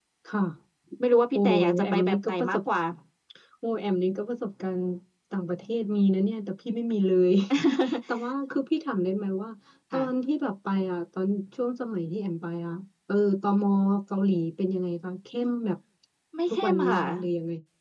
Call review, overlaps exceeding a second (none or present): present